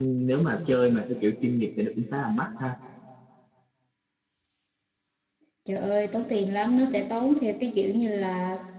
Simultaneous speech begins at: none

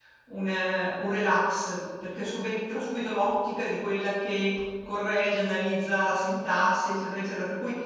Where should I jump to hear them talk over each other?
none

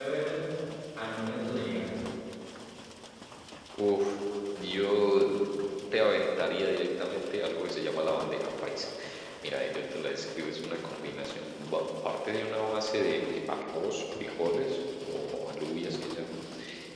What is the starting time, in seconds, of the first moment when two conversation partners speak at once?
none

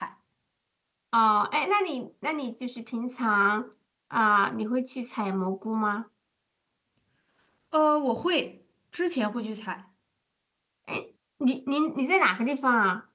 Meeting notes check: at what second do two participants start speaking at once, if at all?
none

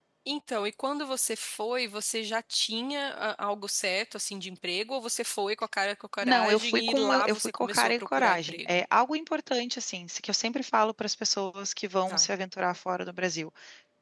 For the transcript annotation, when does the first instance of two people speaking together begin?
6.2 s

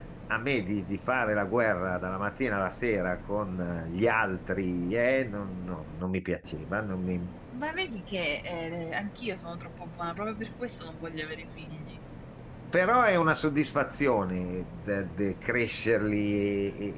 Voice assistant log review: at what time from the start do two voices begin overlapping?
none

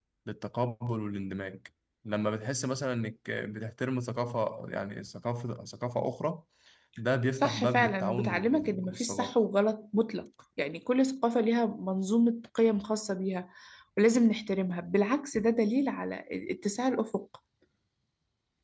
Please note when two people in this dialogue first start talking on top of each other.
7.3 s

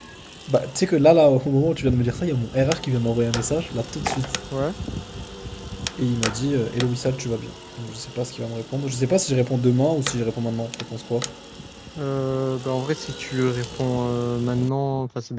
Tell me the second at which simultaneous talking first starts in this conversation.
none

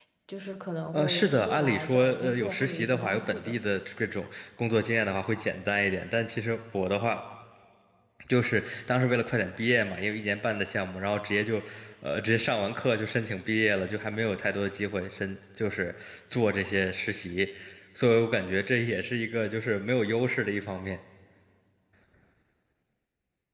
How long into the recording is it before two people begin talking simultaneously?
0.9 s

